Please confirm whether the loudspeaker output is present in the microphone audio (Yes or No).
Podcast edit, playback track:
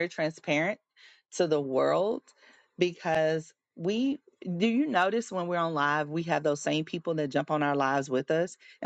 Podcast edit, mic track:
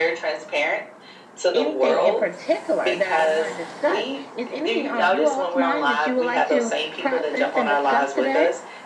Yes